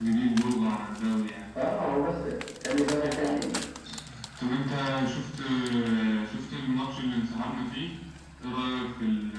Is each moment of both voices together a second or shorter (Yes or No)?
Yes